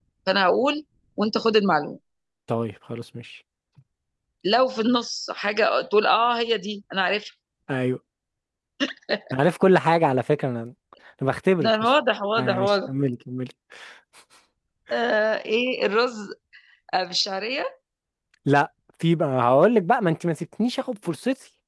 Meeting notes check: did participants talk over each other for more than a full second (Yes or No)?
No